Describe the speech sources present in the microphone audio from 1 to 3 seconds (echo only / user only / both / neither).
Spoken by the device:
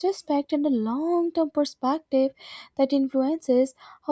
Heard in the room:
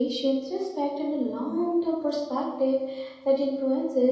echo only